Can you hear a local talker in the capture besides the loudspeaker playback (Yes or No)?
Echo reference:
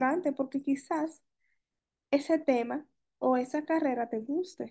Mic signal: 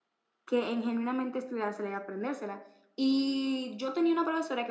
Yes